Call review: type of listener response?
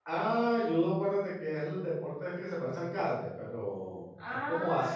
listening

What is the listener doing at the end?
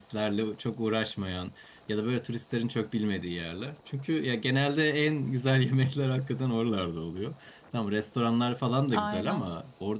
listening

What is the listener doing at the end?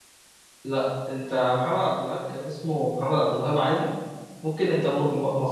listening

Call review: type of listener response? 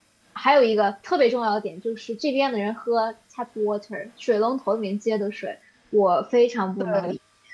listening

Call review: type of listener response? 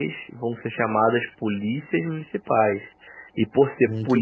listening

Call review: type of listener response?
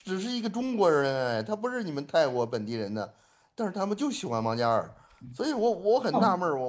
taking over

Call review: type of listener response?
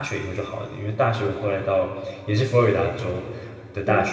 listening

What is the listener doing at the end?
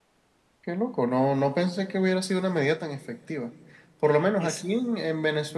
listening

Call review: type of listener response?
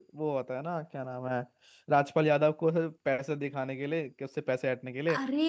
listening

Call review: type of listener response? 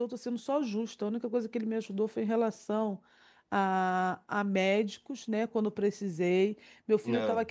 listening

